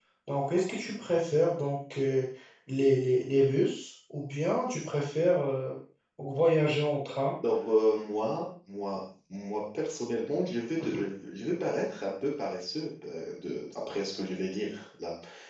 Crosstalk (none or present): none